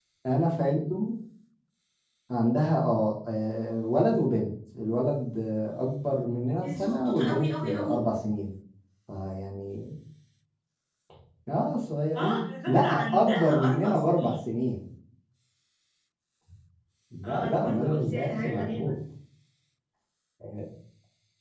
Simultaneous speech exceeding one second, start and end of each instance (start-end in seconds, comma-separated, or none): 6.6-8.0, 12.2-14.4, 17.2-18.9